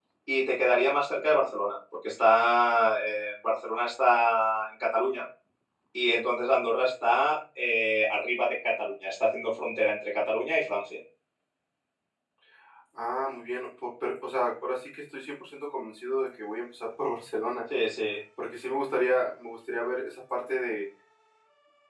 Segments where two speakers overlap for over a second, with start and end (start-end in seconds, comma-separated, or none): none